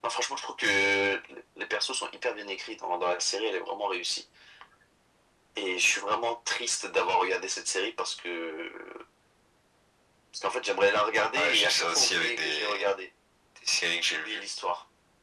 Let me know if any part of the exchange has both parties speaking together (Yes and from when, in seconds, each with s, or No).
Yes, from 11.4 s